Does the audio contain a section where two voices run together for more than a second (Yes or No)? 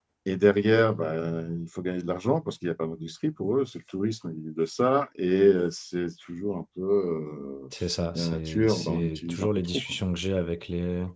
Yes